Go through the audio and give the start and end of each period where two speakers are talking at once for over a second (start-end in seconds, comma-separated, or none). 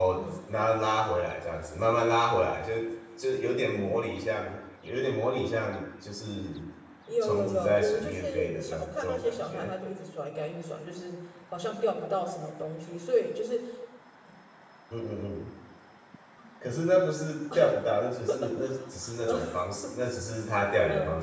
7.2-9.7